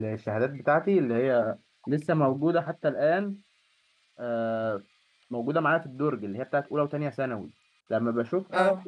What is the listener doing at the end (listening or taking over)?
listening